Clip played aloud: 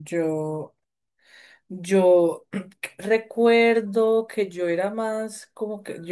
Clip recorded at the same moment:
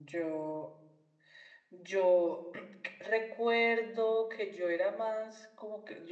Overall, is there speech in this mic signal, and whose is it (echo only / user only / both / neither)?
echo only